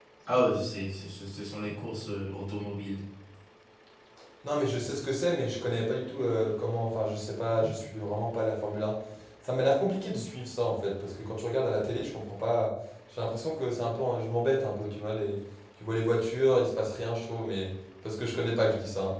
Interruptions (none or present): none